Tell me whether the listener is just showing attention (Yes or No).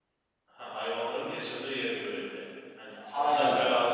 No